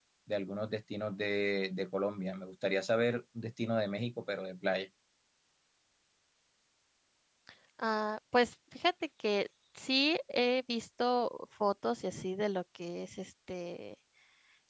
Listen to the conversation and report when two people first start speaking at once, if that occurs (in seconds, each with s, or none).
none